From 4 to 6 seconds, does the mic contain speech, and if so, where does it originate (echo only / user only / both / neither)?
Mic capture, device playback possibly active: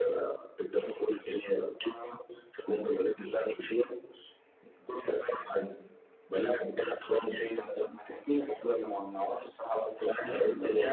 echo only